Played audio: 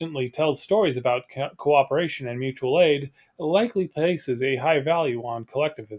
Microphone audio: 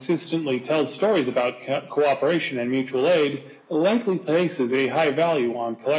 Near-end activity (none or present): none